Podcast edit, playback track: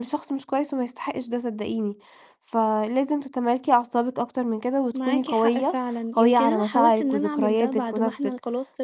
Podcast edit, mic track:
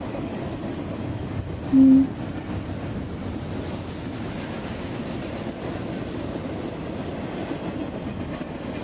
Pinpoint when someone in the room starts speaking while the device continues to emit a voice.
1.7 s

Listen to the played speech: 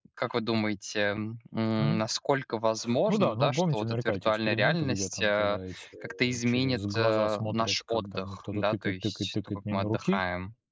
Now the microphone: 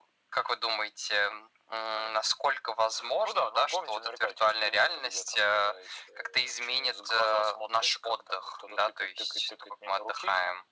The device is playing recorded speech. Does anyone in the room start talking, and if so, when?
none

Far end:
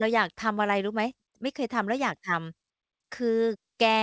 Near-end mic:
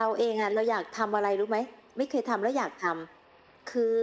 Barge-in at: none

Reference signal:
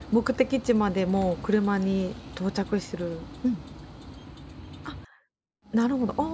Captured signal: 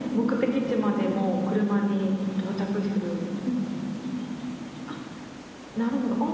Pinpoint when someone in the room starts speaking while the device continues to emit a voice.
none

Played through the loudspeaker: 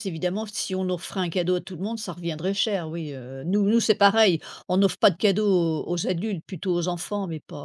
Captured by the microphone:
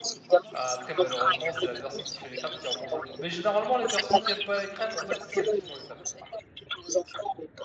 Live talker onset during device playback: 0.5 s

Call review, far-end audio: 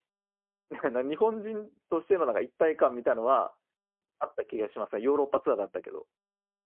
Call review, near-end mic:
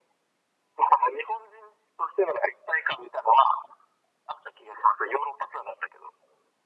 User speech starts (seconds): none

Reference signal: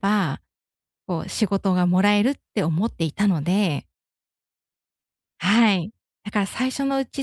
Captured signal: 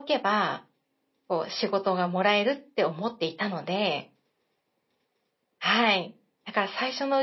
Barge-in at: none

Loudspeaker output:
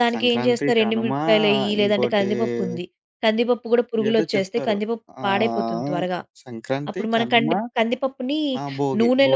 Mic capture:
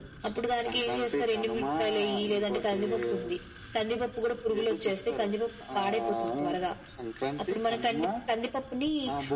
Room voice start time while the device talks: none

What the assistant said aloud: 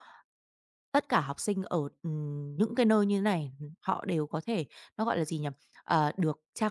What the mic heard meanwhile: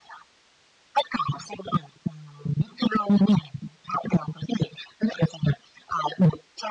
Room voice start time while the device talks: none

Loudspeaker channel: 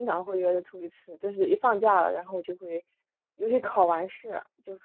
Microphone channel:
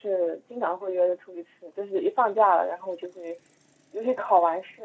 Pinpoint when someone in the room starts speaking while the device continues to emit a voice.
none

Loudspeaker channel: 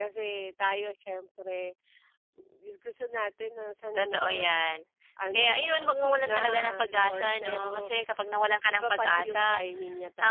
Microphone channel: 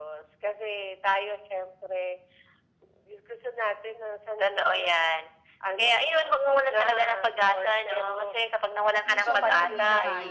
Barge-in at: 9.1 s

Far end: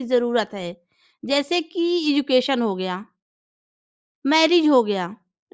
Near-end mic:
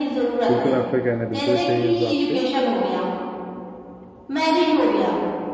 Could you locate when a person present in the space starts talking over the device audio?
0.5 s

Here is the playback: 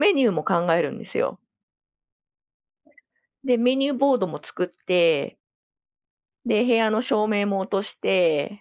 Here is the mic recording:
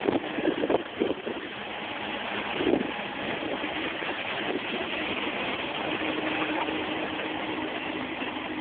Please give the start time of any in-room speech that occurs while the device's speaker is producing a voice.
none

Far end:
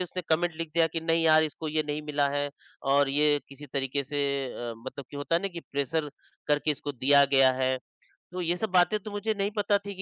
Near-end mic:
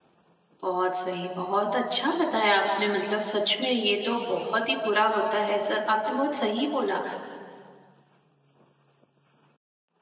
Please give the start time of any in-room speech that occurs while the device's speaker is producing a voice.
0.6 s

